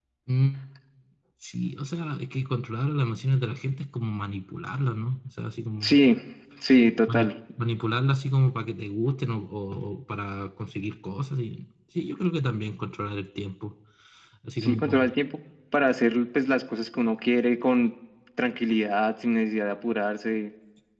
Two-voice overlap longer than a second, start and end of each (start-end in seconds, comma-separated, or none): none